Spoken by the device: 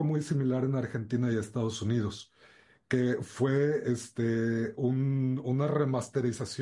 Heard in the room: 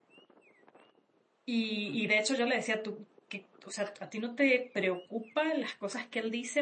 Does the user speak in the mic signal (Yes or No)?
Yes